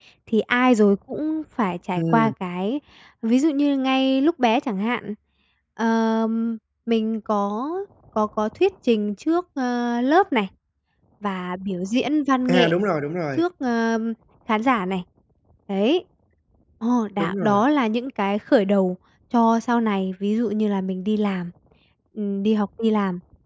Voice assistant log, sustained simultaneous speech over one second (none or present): none